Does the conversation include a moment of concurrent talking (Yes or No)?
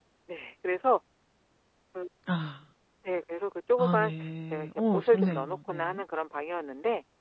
Yes